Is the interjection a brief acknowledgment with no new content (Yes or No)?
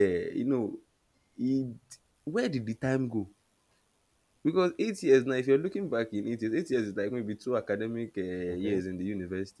Yes